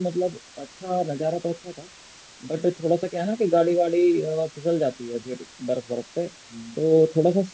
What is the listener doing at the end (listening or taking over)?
listening